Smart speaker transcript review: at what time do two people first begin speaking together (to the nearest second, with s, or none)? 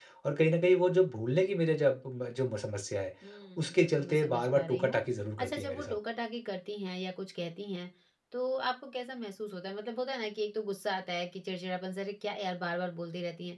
4 s